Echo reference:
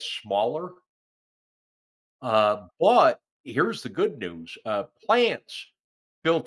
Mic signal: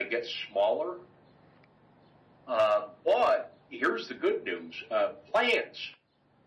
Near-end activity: none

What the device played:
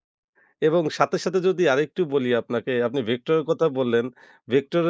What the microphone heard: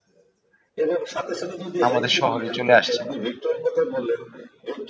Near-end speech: present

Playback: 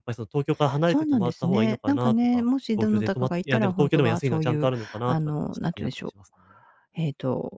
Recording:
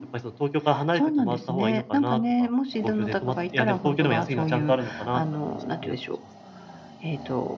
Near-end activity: none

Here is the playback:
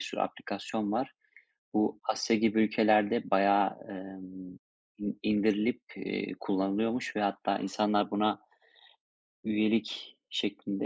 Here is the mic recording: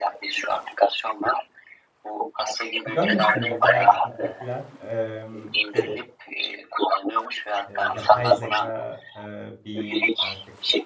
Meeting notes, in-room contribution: present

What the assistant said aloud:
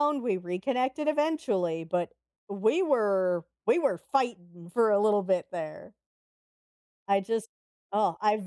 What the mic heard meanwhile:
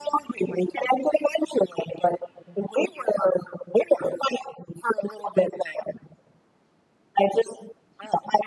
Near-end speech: none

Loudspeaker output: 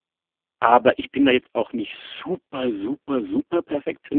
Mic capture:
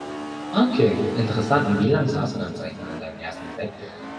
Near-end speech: present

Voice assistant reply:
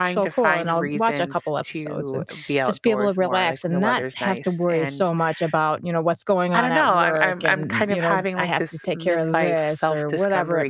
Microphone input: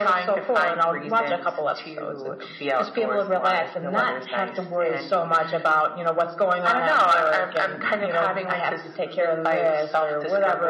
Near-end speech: none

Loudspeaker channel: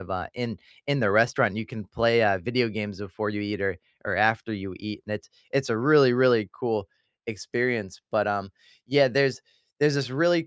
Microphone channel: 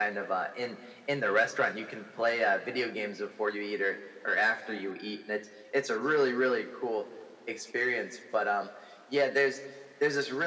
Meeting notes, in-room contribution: none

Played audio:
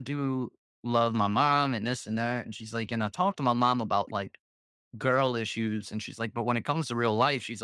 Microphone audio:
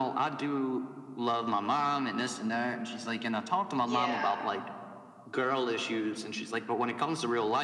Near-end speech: present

